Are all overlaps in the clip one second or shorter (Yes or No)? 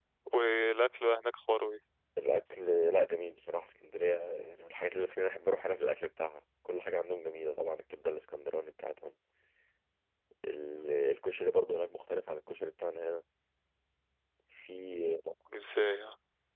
Yes